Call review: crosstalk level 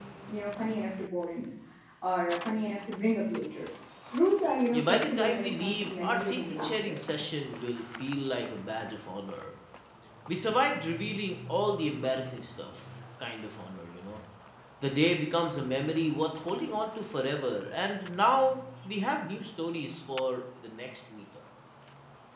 present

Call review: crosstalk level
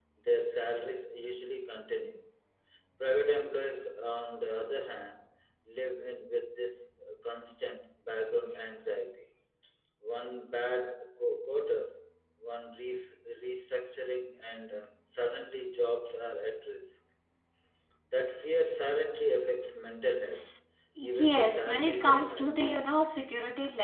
present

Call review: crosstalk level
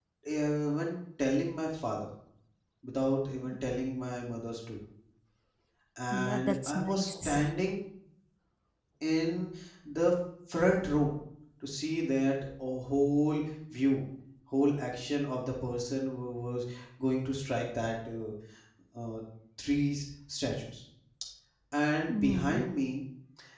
present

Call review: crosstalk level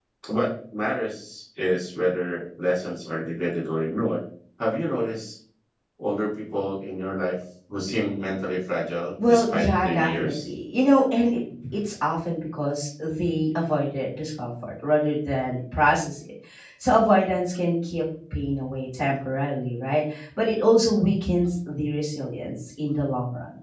present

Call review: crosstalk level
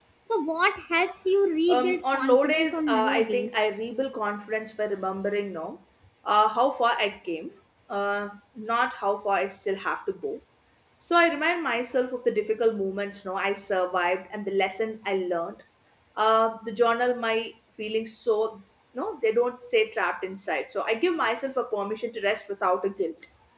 present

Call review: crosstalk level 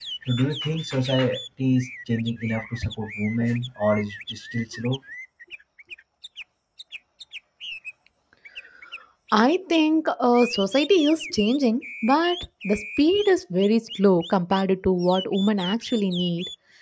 none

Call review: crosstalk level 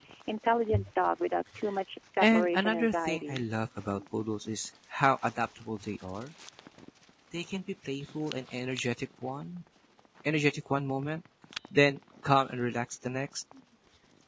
present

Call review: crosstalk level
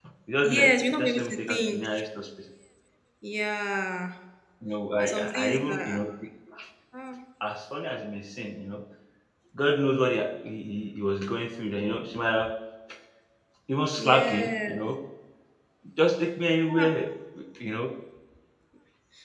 present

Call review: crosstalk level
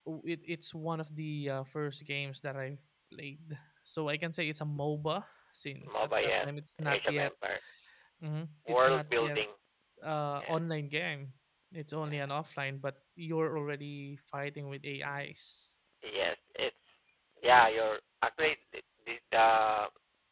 present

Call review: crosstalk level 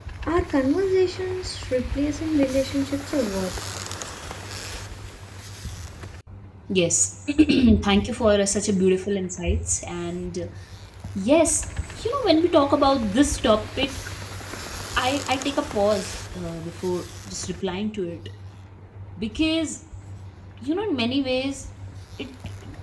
none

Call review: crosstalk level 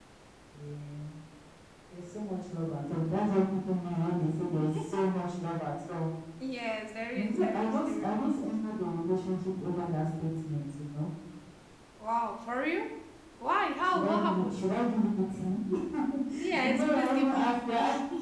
present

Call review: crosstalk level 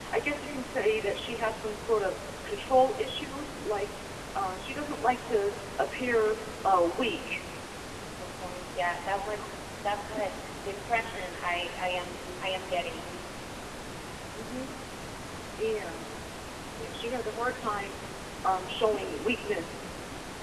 none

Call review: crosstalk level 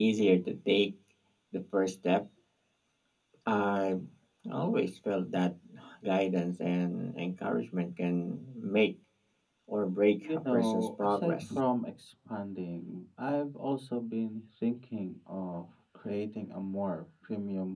present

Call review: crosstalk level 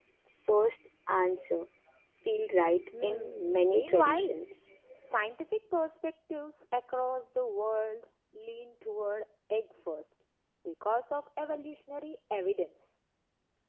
present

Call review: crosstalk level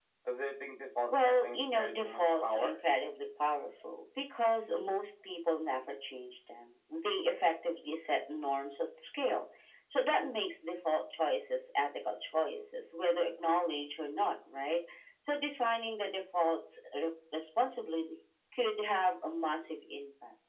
present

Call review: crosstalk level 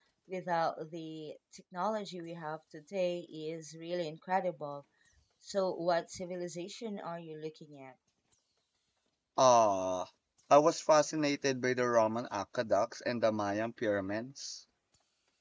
none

